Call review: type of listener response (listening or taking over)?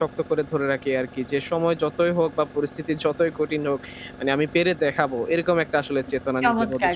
taking over